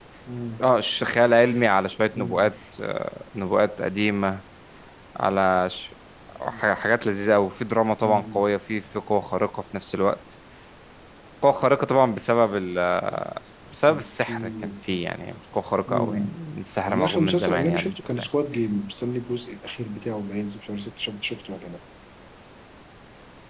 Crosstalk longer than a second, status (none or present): present